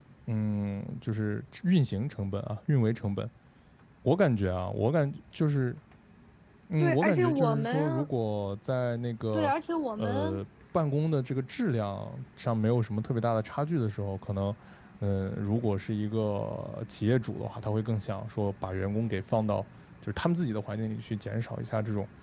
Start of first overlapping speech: 6.8 s

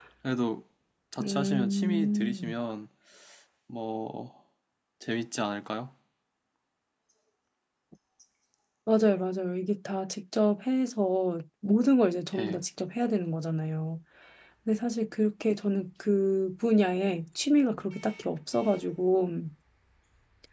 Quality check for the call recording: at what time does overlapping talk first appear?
1.2 s

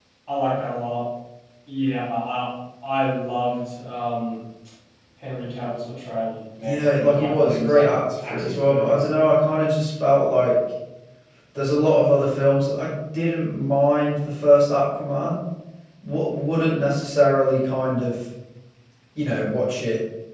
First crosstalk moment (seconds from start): 6.6 s

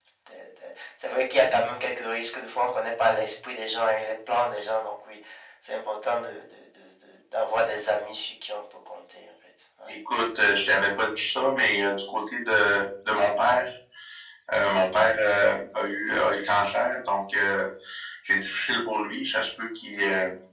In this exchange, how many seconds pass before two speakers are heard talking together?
none

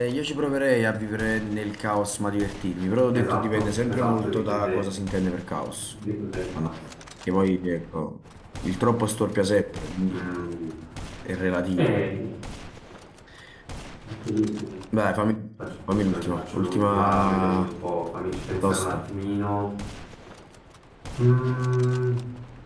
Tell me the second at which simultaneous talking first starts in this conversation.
3.1 s

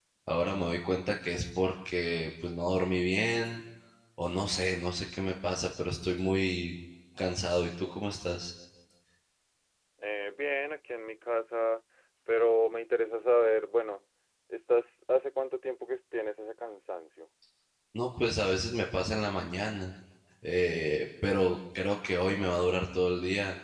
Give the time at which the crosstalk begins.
none

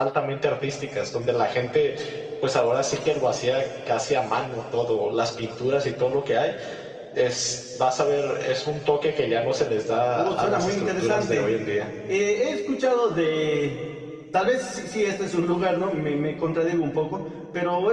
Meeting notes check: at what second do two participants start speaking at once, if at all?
10.2 s

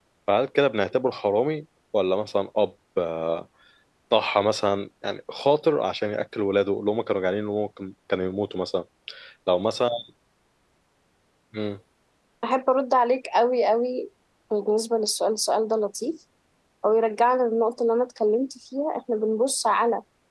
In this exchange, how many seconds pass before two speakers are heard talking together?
none

